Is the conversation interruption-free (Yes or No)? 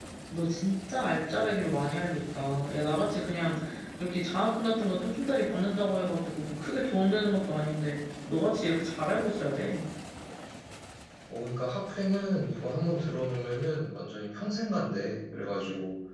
Yes